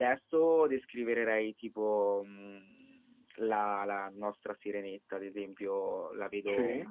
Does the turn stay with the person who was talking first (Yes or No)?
Yes